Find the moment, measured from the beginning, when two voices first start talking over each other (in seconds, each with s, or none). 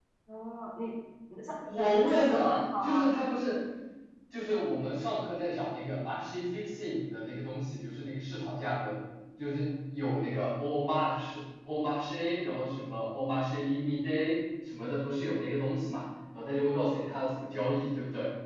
1.6 s